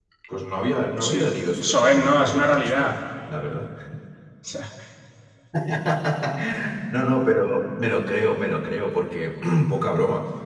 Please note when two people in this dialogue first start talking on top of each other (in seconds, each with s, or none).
1.0 s